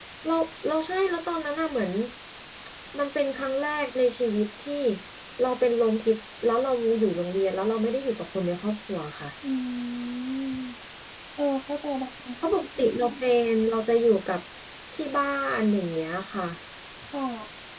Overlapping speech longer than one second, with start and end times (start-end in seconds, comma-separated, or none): none